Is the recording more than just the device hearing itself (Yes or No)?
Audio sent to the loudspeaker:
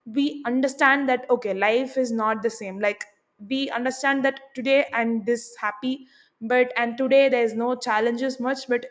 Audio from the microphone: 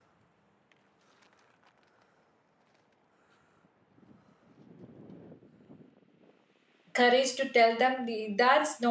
Yes